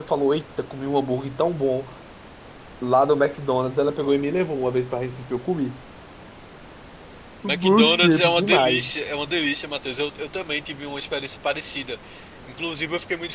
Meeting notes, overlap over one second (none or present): present